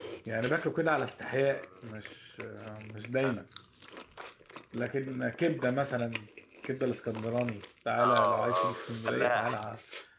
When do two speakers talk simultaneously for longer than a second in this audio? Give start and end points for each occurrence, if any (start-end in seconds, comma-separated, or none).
8.0-9.6